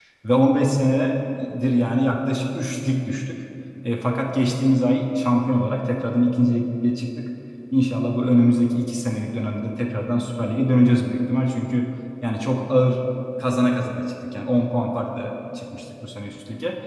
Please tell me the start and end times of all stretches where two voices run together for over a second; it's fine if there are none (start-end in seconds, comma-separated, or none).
none